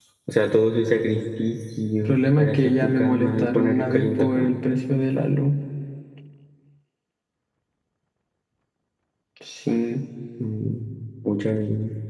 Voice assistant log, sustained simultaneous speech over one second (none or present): present